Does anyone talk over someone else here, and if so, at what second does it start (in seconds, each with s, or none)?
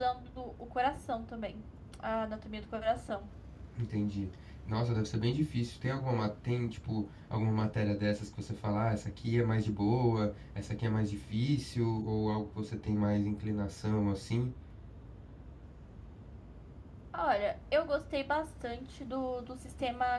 none